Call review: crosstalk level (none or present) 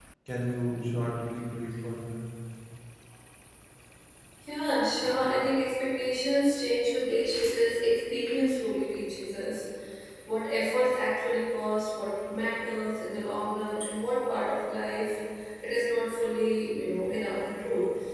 none